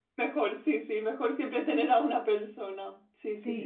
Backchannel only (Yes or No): No